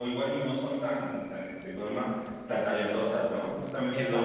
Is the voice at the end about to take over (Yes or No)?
No